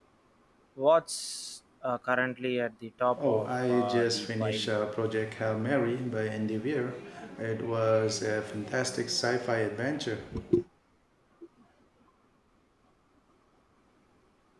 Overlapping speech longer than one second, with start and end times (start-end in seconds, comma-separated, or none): 3.2-4.7